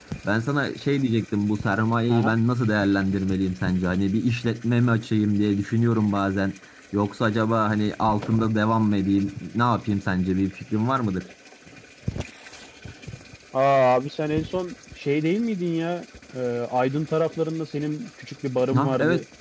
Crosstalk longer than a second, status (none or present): none